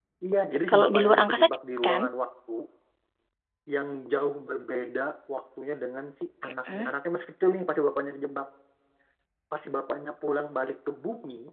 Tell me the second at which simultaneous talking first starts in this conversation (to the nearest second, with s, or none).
1 s